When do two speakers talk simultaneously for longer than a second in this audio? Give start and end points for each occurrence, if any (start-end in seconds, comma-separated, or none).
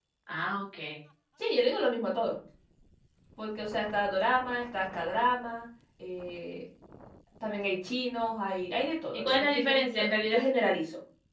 9.1-10.4